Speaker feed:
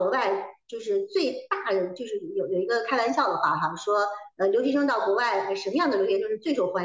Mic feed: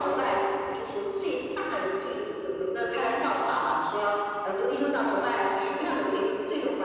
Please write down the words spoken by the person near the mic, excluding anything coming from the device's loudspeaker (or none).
none